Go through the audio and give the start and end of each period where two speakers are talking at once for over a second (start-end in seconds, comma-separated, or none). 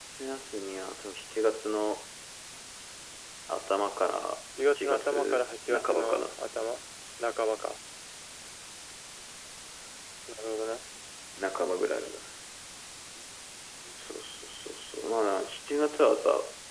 4.8-6.4